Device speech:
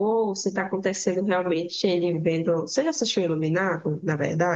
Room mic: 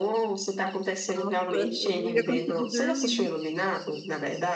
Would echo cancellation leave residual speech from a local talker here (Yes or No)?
Yes